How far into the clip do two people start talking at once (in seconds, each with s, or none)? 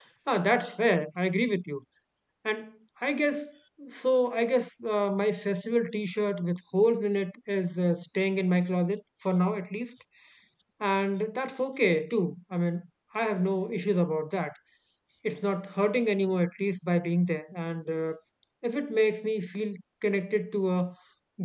none